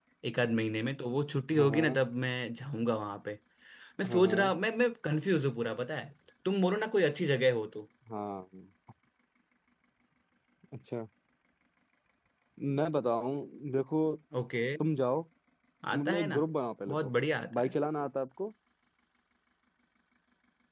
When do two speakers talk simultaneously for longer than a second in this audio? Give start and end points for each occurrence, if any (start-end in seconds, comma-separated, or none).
none